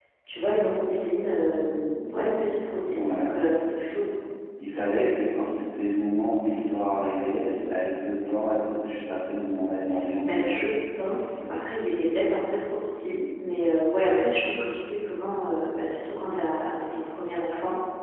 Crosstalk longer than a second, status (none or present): none